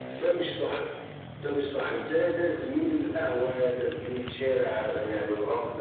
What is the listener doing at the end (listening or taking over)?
listening